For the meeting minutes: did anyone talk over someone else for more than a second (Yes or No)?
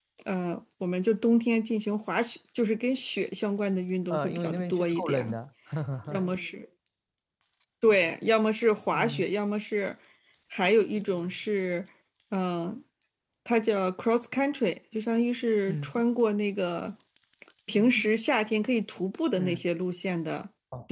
Yes